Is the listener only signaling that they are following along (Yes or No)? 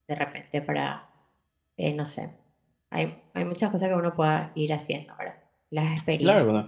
No